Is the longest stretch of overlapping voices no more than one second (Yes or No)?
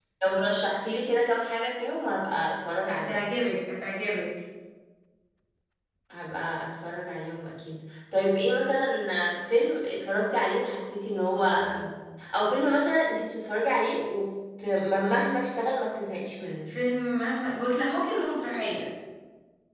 Yes